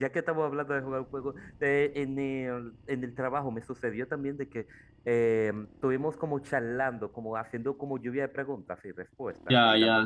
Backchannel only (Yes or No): No